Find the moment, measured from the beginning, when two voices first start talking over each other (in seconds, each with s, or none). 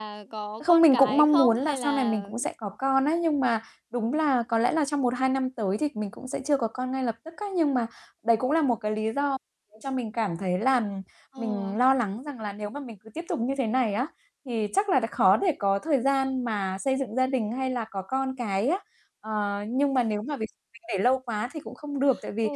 0.7 s